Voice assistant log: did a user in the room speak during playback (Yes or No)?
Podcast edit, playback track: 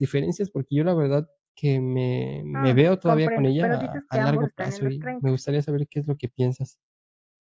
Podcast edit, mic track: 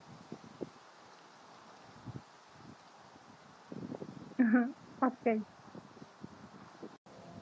Yes